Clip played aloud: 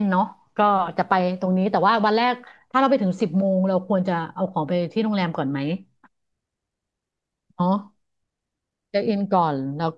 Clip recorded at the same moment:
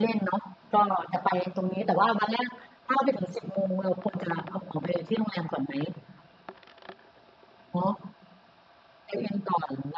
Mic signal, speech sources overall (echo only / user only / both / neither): echo only